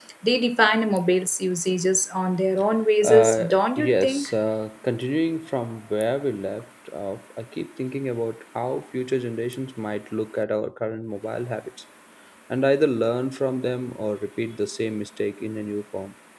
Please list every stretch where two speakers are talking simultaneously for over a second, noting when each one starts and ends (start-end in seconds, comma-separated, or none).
3.0-4.3